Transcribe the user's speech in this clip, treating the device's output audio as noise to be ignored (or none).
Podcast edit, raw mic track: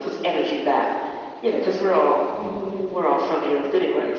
mm Mhm.